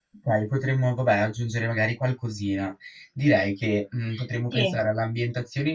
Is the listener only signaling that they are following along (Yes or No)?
Yes